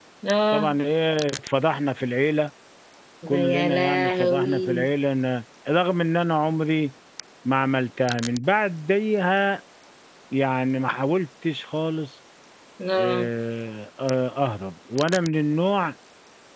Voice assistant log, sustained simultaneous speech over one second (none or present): present